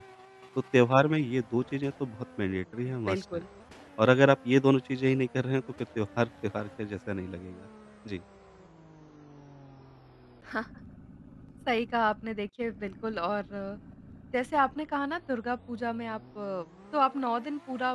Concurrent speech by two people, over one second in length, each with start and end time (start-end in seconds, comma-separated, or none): none